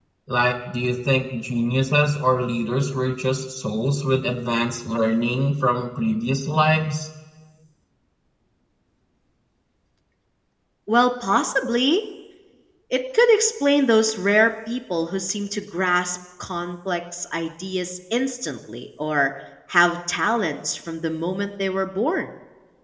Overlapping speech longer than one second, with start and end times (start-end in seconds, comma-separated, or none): none